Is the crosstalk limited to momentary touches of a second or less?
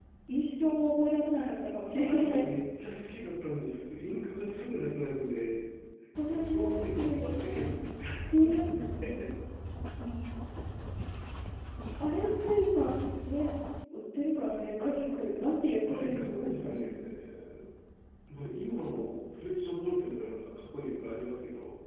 No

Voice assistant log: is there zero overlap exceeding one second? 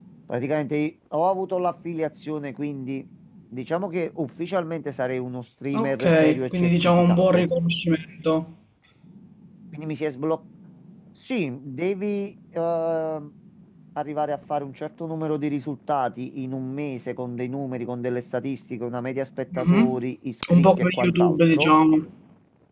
No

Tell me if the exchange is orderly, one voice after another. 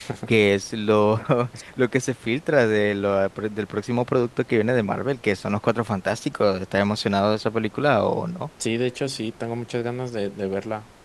Yes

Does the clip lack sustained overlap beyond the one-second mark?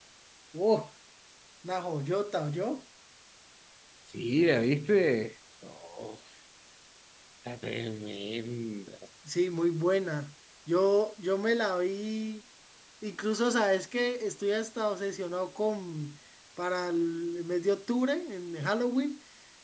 Yes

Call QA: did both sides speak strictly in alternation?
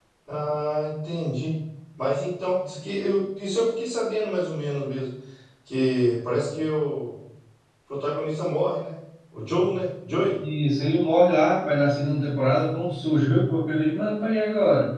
Yes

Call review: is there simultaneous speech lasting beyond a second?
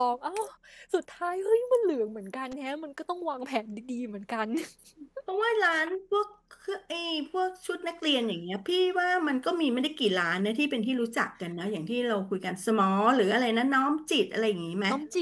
No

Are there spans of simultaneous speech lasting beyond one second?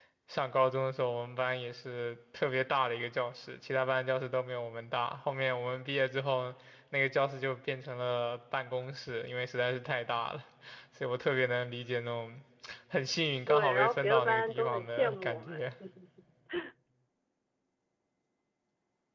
Yes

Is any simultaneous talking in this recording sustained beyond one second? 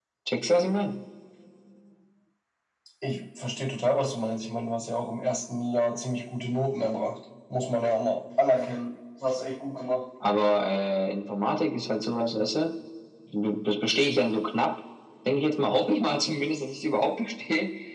No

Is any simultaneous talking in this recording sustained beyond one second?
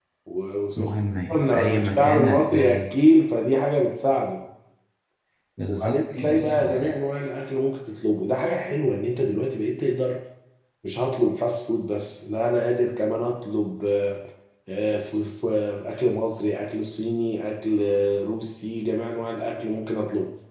Yes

